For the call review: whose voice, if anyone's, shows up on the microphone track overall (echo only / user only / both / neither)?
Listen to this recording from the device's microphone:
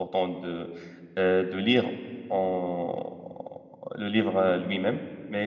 user only